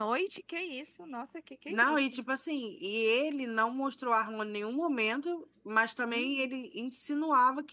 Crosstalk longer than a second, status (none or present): none